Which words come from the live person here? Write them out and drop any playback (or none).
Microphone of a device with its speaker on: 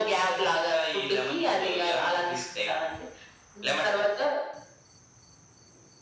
none